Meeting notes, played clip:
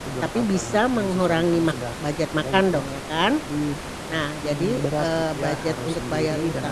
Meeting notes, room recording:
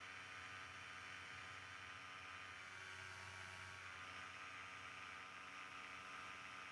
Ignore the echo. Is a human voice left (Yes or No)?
No